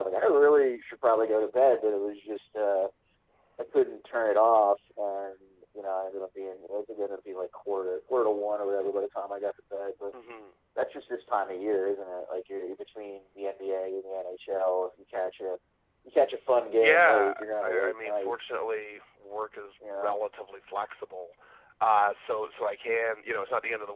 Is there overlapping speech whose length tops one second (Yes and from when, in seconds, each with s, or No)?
Yes, from 16.8 s